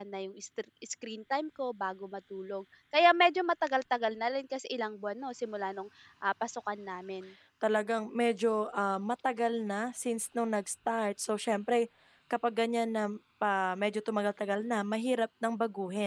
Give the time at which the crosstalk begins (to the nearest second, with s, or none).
none